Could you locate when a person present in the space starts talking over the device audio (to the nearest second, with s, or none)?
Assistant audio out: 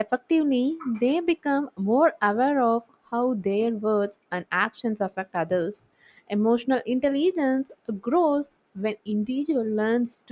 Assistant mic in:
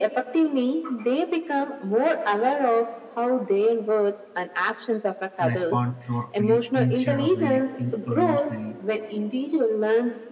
5 s